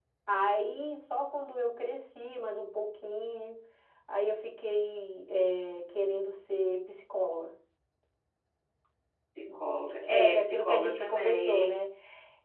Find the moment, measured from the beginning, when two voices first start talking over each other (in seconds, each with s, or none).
10.0 s